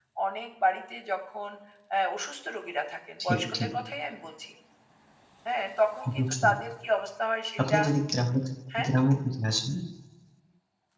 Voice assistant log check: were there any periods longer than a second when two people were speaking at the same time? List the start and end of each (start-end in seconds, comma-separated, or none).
none